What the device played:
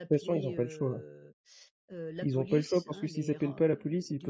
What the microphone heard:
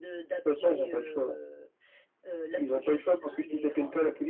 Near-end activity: none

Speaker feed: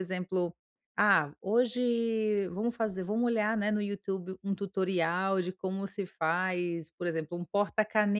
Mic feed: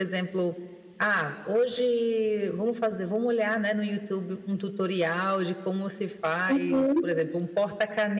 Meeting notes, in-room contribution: present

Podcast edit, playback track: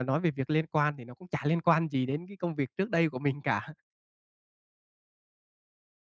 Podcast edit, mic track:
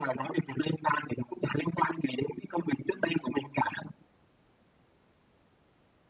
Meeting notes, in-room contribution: none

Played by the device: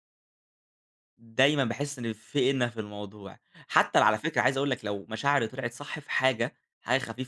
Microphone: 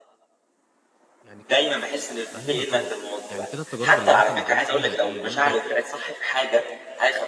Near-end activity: present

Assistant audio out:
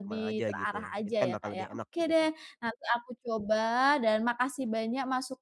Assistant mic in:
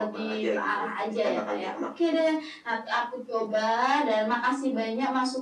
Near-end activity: none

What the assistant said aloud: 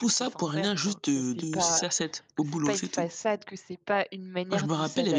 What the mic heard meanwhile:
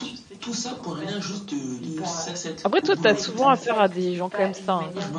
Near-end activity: present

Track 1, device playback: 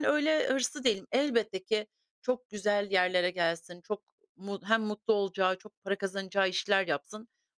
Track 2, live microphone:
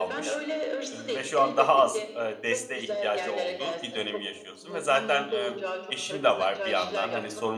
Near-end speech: present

